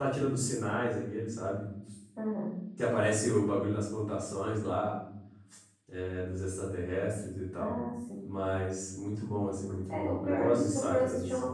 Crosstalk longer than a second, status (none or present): present